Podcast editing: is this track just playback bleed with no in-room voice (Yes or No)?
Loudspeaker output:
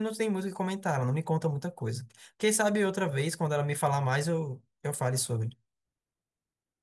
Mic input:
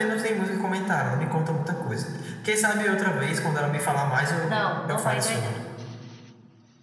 No